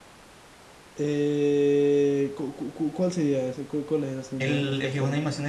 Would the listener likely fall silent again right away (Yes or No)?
No